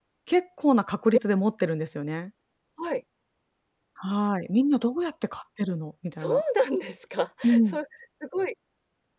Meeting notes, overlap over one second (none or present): none